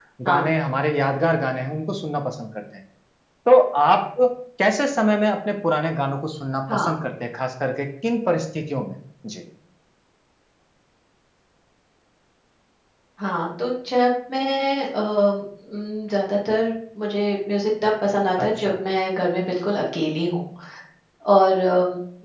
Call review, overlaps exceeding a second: none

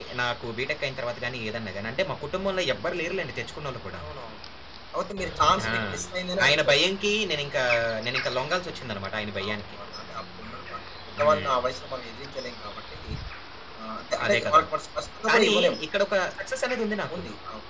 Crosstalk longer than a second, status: none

